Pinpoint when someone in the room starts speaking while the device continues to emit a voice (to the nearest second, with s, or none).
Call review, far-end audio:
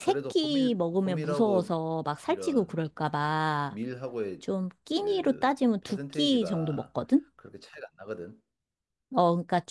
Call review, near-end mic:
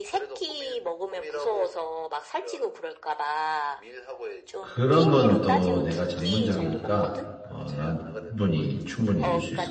5 s